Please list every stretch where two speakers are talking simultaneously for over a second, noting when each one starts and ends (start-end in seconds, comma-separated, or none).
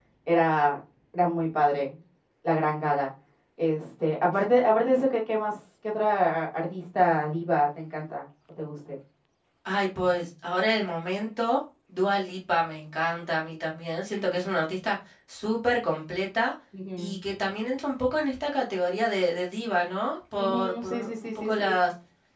20.4-21.6